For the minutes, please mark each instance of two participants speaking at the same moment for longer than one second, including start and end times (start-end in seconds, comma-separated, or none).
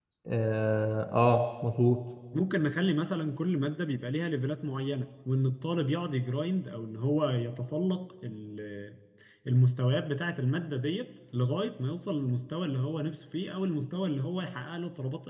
none